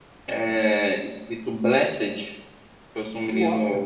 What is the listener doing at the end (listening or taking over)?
listening